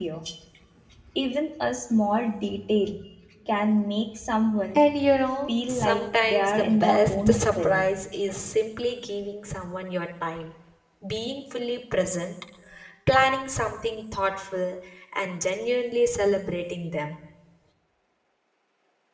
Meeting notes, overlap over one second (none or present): present